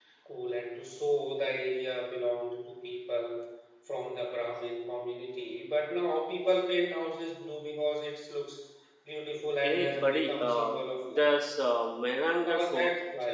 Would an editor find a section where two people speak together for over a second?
Yes, from 9.6 s

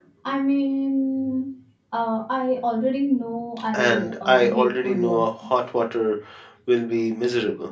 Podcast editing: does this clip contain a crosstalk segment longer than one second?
Yes, from 3.7 s

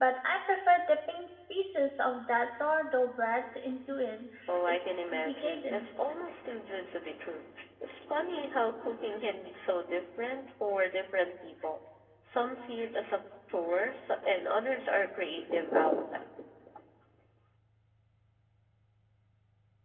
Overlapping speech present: Yes, from 4.7 s

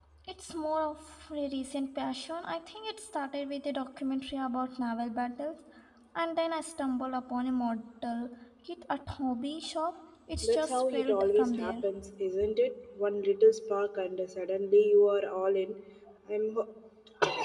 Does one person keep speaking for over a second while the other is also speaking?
Yes, from 10.4 s

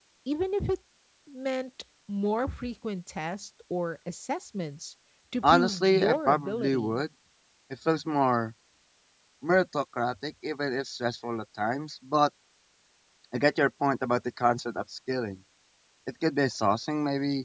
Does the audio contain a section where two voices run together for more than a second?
Yes, from 5.4 s

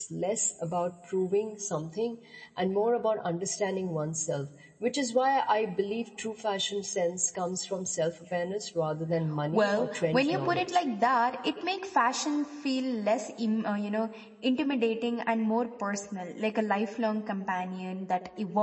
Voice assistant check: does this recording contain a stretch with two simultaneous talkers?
Yes, from 9.5 s

